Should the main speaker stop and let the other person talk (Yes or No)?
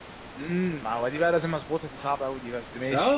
Yes